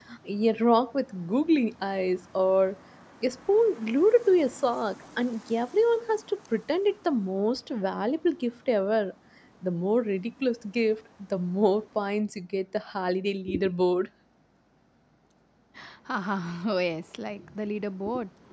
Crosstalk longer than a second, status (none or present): none